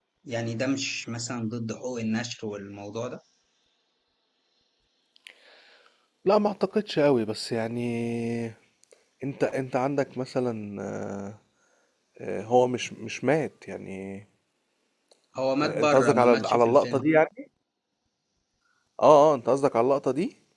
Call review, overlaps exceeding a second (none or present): present